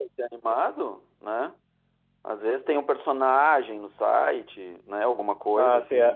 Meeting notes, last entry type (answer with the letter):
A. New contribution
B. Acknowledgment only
A